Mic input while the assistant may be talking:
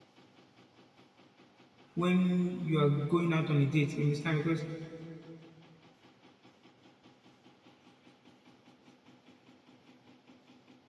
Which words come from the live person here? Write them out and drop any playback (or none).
when you are going out on a date. You understand? Because